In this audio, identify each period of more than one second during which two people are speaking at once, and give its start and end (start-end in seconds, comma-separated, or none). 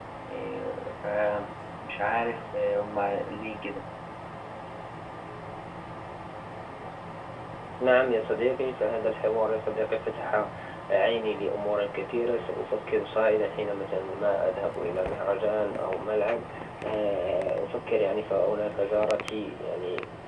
none